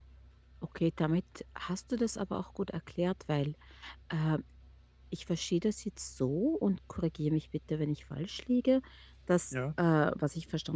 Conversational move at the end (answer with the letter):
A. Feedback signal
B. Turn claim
A